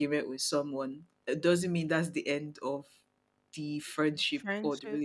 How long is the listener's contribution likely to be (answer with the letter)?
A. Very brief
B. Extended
A